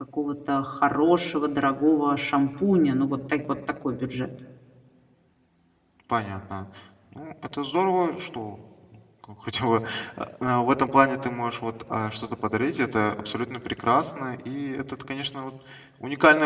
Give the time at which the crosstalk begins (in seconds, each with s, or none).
none